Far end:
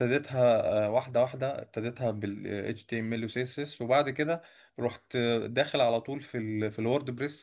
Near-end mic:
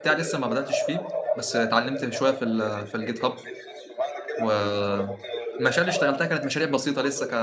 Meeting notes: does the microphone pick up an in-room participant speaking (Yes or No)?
Yes